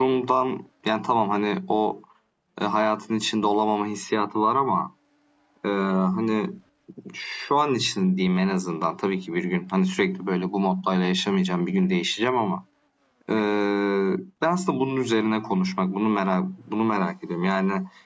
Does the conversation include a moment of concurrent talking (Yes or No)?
No